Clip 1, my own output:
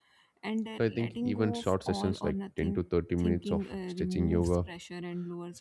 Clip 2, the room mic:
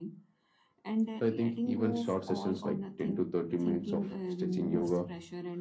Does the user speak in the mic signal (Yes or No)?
No